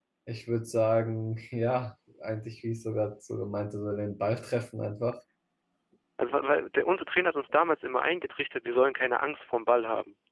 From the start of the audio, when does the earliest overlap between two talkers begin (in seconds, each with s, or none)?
none